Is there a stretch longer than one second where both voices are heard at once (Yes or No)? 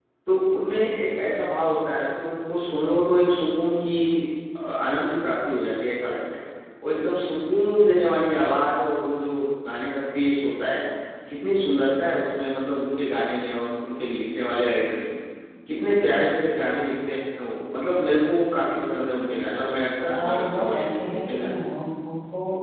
Yes